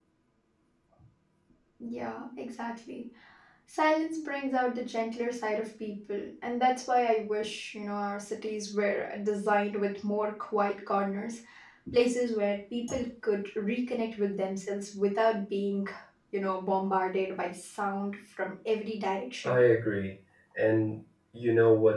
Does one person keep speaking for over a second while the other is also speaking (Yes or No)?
No